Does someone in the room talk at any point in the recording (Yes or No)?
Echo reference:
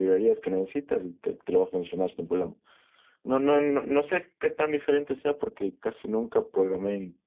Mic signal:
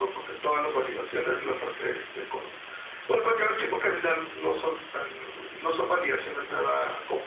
Yes